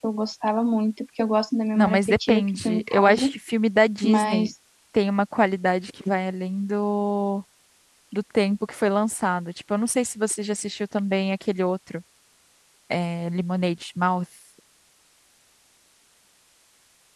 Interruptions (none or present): present